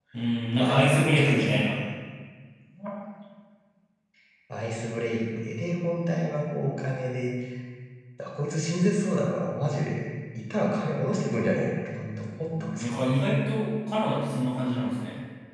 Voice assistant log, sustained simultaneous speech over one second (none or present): present